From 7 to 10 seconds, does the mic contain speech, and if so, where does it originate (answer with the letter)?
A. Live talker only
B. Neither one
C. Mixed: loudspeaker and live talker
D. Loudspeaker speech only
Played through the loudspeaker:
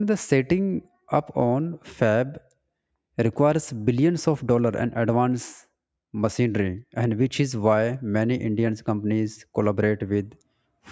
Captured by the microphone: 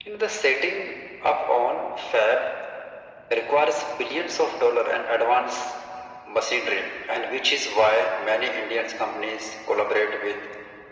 D